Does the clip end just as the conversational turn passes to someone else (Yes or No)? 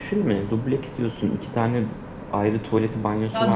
Yes